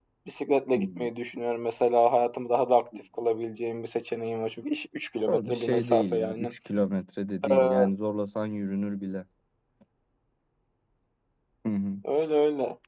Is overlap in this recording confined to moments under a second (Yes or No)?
No